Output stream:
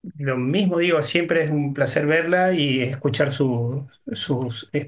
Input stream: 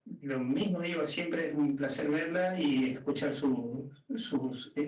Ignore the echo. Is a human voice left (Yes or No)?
No